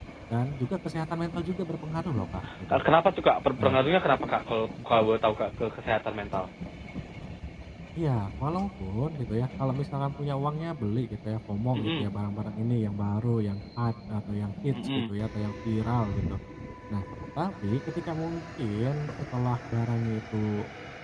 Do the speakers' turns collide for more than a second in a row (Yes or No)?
No